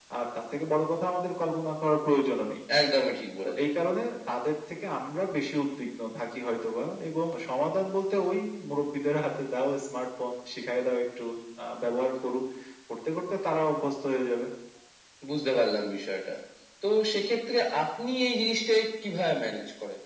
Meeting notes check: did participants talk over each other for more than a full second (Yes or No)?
No